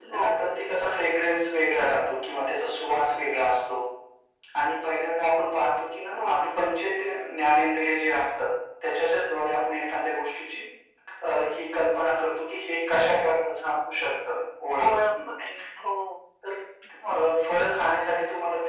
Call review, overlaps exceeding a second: none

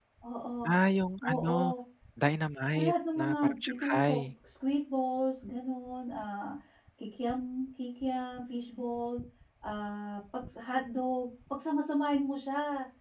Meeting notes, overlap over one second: present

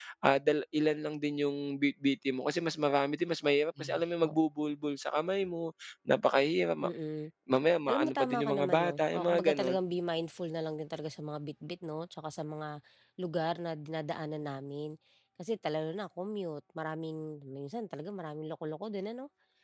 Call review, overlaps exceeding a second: present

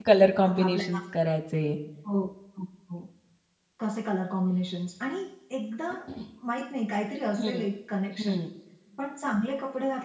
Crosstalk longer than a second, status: none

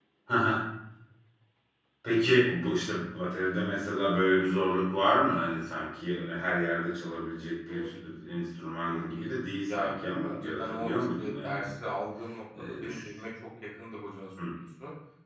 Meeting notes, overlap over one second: present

